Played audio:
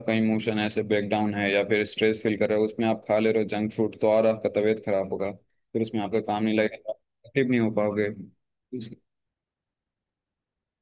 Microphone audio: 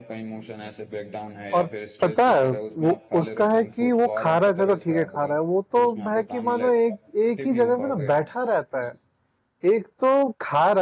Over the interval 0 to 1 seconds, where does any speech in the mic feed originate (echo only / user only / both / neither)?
echo only